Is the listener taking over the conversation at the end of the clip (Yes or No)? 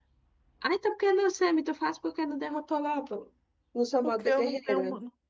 Yes